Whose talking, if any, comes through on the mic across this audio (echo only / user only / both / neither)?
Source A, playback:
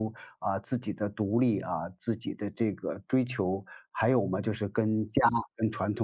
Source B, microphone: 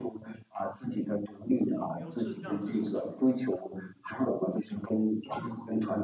both